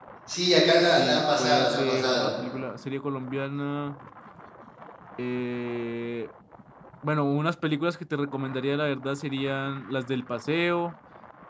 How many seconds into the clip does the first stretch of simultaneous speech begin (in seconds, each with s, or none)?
0.9 s